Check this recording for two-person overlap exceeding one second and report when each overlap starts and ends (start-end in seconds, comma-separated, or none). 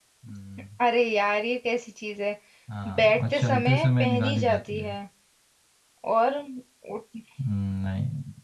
2.9-4.9